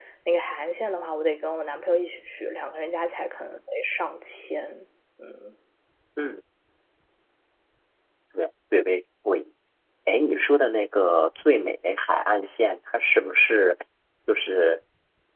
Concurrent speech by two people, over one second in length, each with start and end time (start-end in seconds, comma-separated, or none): none